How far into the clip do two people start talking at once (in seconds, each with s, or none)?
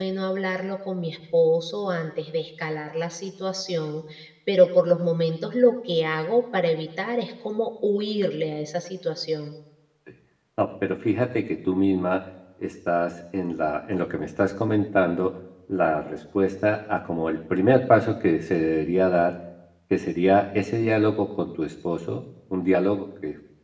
none